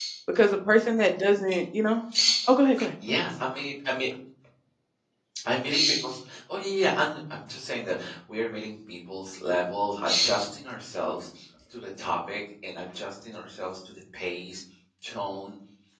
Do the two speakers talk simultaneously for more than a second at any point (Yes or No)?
No